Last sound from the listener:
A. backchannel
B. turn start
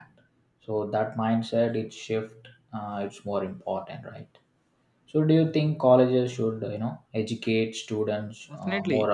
B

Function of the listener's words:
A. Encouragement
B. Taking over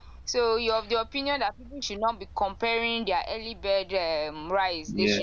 B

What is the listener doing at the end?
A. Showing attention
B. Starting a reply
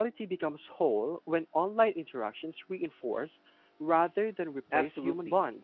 B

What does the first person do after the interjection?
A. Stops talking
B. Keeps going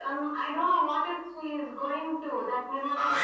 A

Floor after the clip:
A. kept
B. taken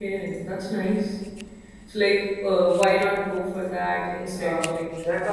B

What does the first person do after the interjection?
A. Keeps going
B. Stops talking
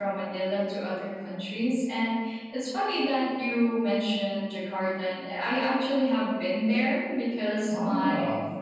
A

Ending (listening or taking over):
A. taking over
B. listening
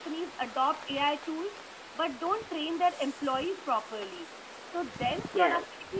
B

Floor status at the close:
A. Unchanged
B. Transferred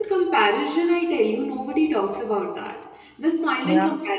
A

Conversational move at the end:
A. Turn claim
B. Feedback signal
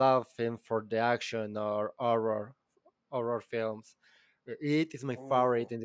B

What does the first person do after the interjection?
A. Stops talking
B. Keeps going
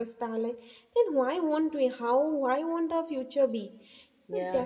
B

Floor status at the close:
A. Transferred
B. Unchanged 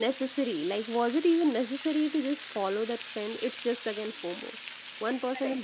B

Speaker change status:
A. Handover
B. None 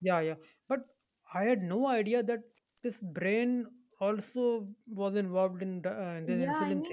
A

